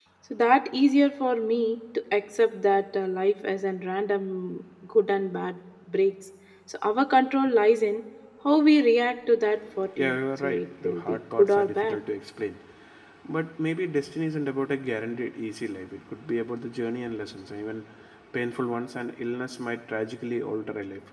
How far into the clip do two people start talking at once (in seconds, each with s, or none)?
10.0 s